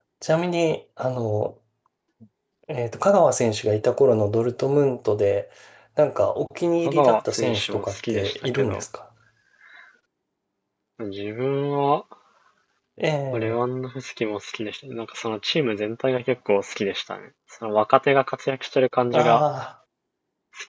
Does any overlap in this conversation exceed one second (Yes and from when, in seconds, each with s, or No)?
Yes, from 6.8 s